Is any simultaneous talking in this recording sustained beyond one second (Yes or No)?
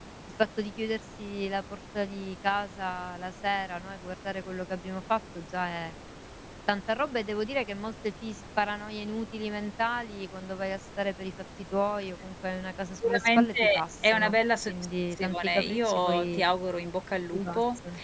Yes